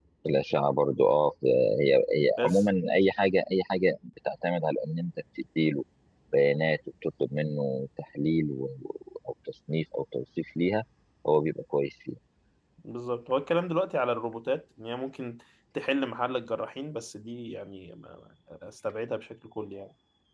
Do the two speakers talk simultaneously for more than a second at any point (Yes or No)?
No